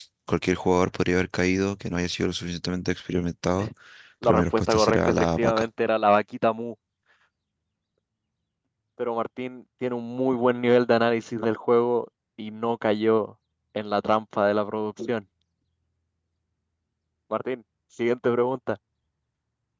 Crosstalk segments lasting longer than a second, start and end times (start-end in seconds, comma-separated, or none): 4.2-5.7